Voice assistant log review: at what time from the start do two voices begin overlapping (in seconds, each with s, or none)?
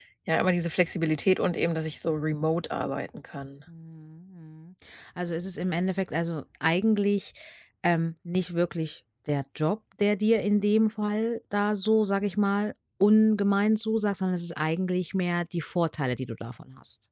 none